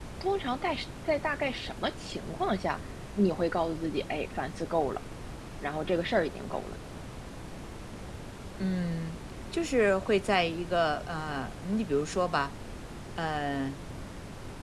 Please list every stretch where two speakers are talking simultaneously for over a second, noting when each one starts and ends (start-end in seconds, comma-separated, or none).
none